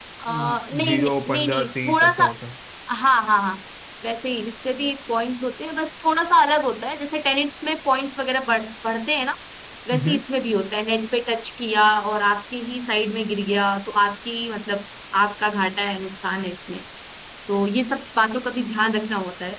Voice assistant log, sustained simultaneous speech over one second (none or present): present